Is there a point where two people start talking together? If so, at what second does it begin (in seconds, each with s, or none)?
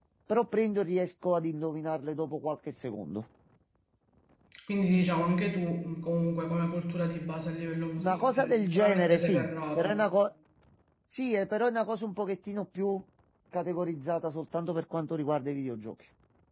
8.0 s